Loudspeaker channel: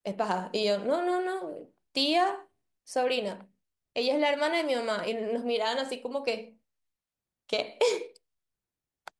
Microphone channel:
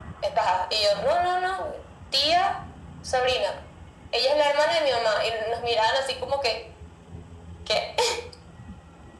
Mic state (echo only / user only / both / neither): echo only